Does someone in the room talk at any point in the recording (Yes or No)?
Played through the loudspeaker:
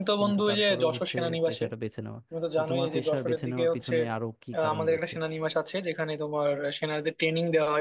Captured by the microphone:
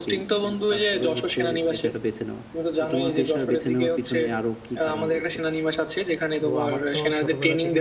Yes